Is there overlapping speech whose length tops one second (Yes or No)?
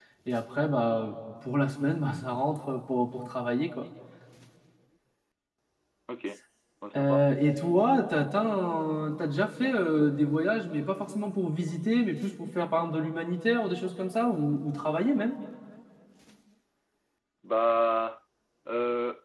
No